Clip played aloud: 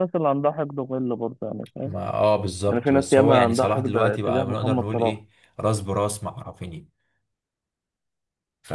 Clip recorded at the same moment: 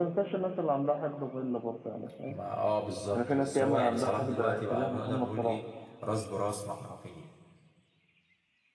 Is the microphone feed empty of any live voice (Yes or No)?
Yes